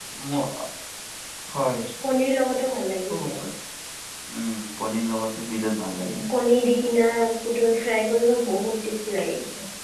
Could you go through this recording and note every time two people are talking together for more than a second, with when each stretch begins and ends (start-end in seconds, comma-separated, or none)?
none